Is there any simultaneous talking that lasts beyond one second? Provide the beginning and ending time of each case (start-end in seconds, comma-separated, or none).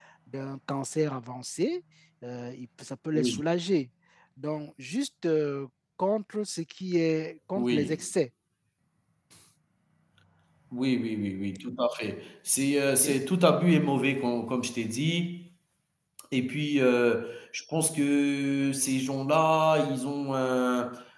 none